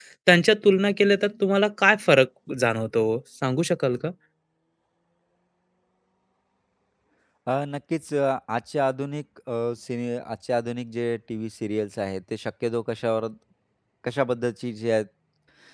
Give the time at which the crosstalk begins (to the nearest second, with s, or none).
none